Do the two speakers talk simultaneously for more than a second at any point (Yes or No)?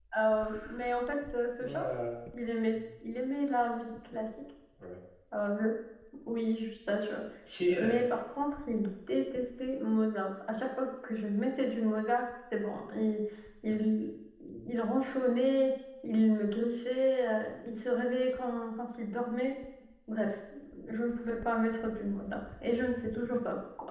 No